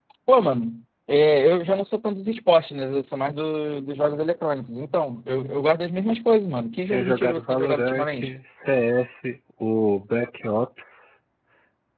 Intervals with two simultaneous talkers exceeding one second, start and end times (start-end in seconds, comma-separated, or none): 6.9-8.3